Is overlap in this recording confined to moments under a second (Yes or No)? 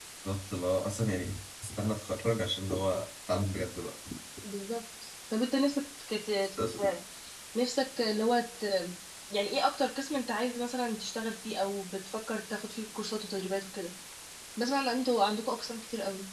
Yes